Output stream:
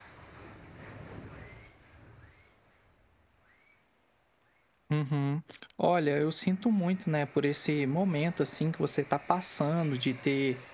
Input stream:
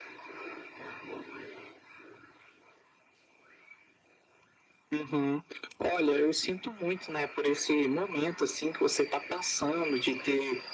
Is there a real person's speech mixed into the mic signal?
No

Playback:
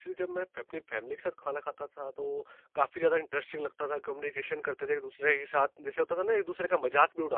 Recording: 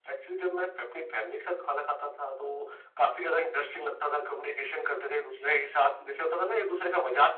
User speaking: No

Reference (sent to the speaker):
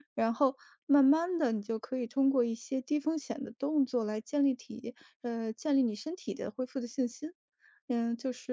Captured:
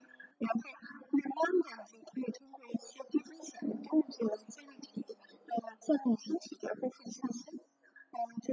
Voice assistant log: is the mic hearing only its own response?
Yes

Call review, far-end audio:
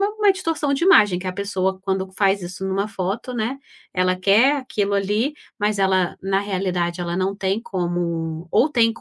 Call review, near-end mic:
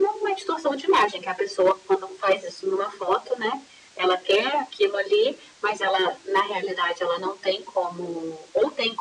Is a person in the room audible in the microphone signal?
No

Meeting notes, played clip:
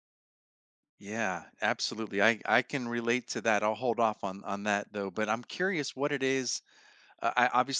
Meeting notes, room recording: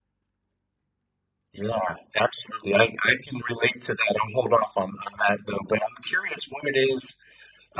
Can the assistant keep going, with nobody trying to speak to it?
Yes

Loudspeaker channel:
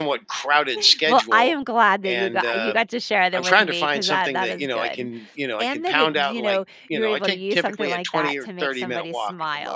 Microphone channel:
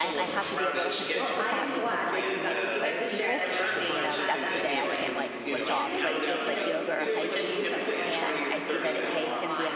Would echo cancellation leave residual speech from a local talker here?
Yes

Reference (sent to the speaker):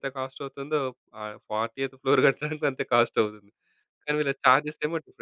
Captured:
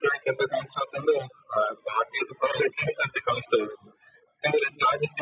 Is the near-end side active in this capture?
No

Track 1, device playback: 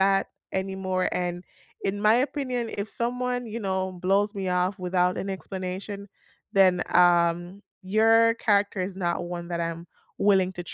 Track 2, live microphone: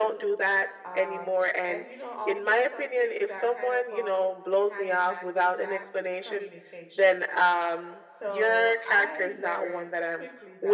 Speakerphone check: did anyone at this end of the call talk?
Yes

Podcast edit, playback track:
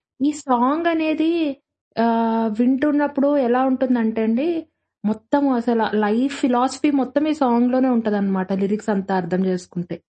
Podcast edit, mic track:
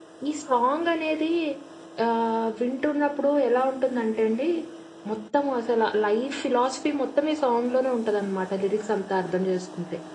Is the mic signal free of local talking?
Yes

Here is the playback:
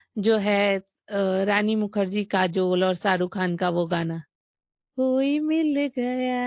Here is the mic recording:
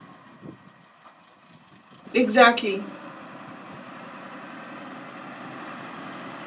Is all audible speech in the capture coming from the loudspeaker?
No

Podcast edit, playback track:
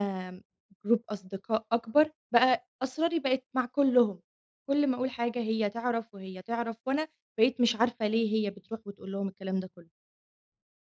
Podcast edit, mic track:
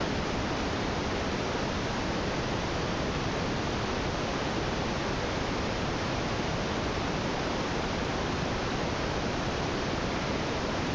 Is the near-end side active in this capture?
No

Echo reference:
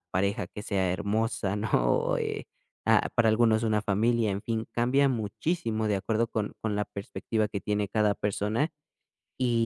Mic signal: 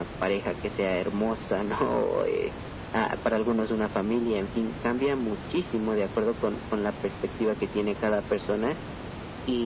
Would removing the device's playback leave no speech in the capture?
Yes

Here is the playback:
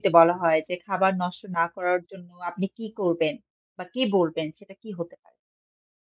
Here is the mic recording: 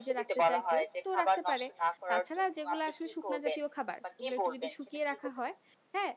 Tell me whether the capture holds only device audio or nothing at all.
No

